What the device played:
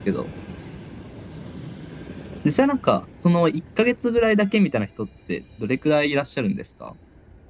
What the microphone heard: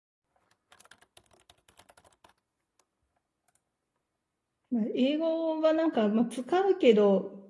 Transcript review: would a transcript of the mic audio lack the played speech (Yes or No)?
Yes